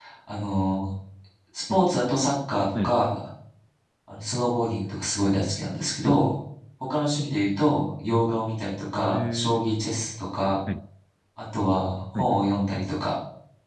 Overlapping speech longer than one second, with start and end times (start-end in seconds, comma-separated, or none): none